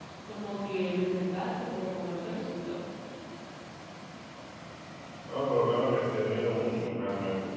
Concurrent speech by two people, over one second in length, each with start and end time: none

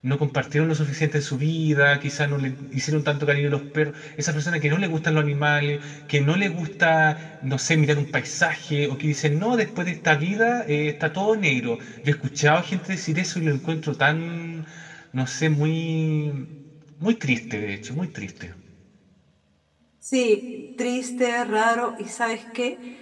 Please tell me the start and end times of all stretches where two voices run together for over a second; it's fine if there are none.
none

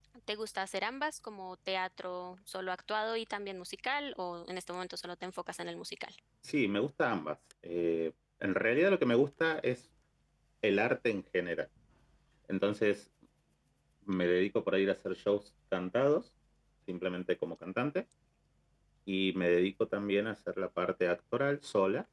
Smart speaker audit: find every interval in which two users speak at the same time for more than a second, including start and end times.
none

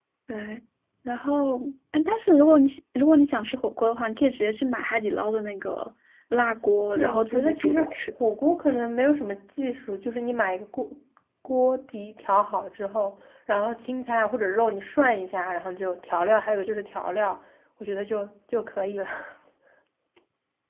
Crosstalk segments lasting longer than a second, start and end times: 6.9-8.1

